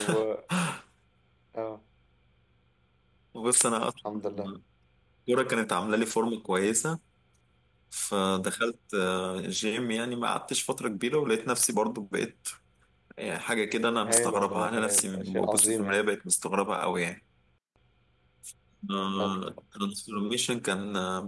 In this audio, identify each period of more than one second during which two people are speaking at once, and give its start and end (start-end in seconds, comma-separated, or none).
14.1-16.0